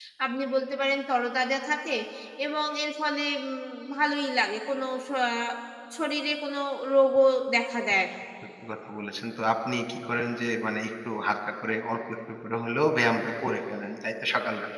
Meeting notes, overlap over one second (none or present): none